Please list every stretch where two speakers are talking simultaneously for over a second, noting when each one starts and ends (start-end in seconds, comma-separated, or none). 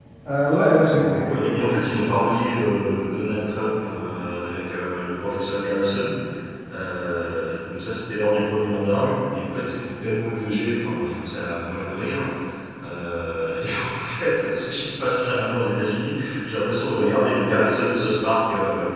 0.9-2.1